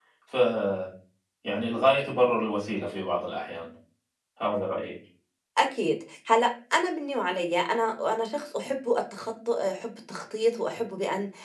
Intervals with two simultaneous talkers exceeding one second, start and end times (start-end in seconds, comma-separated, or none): none